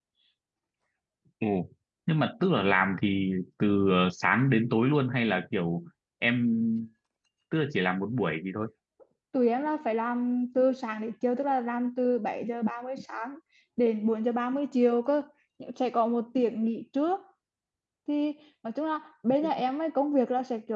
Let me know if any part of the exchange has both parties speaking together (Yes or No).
No